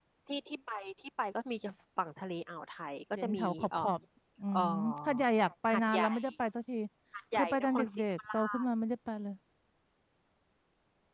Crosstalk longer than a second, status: present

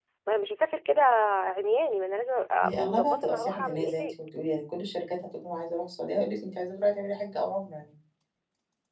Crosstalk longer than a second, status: present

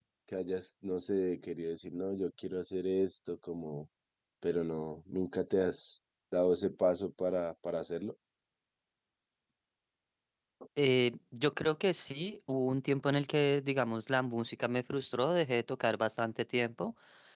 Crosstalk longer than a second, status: none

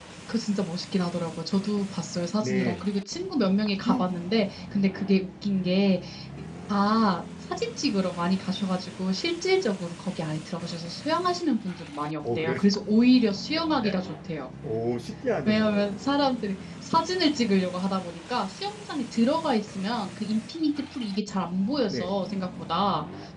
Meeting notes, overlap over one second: none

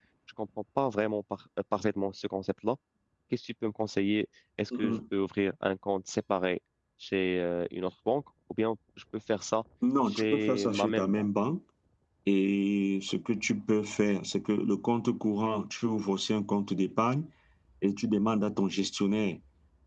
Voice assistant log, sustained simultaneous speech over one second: present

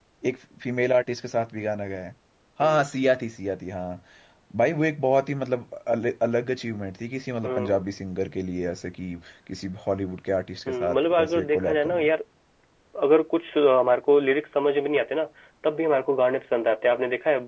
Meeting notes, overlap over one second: present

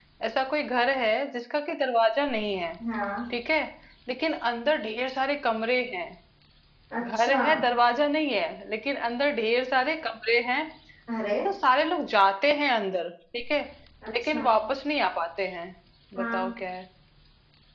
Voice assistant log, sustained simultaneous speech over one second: none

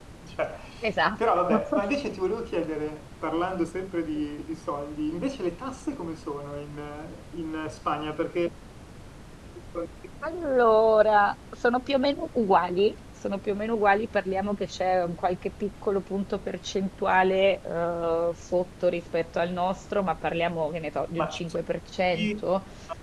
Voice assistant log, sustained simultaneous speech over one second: none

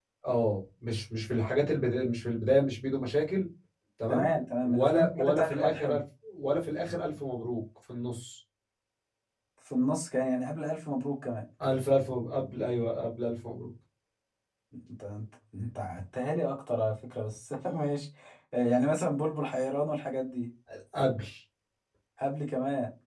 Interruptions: present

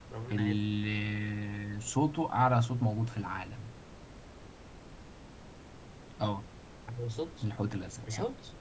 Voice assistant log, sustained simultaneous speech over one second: none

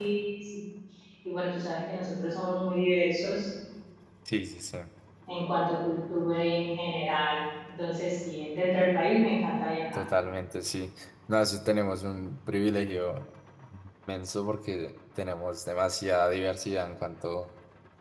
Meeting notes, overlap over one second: none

